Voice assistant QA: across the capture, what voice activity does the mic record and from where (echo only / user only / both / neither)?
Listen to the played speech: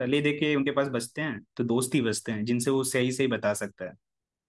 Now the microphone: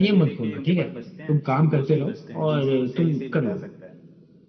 both